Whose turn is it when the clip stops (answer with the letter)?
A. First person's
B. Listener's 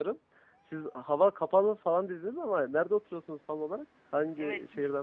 B